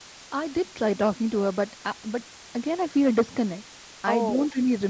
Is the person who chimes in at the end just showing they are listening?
Yes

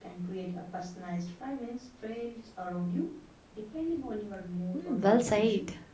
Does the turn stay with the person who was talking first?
No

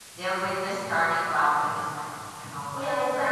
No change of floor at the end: No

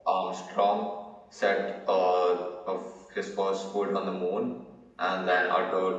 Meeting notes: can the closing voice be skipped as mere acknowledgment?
Yes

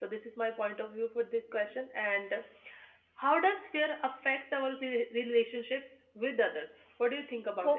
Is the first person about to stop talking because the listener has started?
Yes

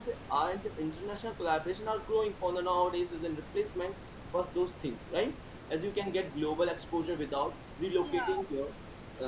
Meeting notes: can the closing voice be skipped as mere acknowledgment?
Yes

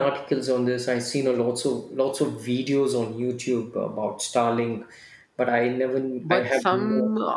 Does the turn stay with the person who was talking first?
No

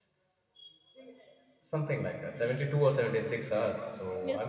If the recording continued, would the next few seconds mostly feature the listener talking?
Yes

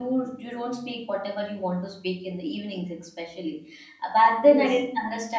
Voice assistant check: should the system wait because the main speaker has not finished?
Yes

